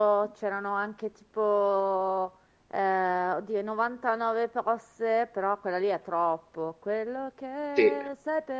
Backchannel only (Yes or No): Yes